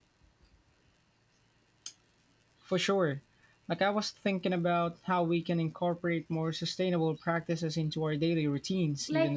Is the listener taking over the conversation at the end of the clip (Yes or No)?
Yes